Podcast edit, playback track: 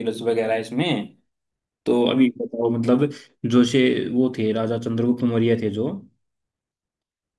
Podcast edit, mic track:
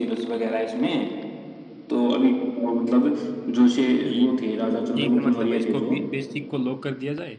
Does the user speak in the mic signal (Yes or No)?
Yes